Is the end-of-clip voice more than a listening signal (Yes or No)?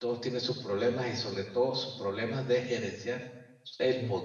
No